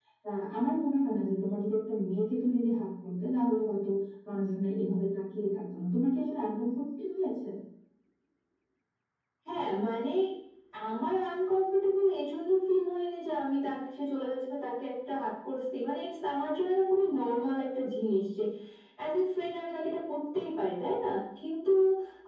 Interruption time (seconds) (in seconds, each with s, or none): none